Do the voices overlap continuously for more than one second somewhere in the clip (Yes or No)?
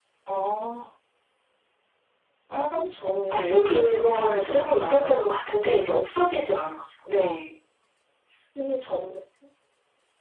Yes